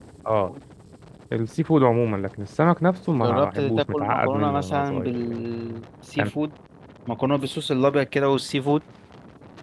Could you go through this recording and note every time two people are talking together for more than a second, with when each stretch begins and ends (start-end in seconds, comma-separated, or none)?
3.1-5.4